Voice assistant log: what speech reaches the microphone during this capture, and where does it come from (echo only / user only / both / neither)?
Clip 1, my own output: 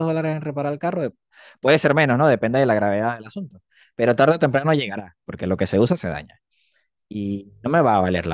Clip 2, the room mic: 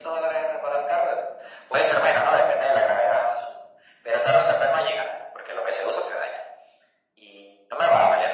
echo only